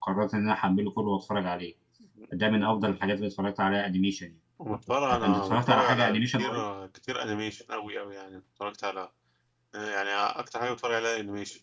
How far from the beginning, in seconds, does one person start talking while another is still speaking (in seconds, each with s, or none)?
5.1 s